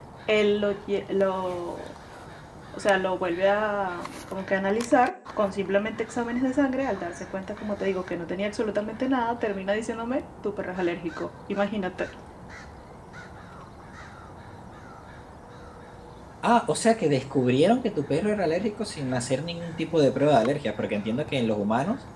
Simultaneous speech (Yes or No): No